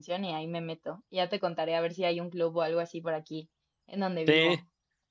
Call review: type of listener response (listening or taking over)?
taking over